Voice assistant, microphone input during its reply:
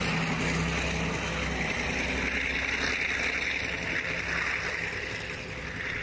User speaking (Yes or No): No